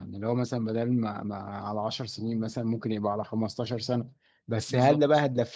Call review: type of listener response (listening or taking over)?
listening